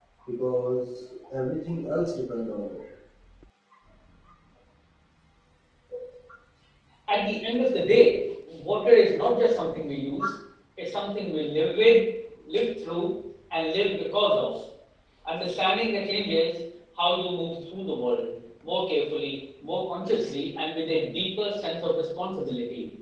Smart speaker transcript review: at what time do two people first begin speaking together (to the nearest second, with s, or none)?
none